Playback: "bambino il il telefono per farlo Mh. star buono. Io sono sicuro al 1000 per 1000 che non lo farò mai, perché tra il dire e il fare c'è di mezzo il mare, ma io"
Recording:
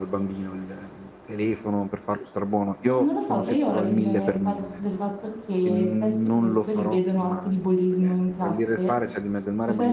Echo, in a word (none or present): present